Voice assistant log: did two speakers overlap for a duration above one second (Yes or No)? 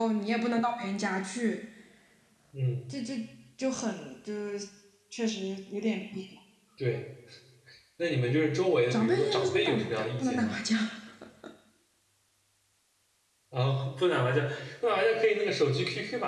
Yes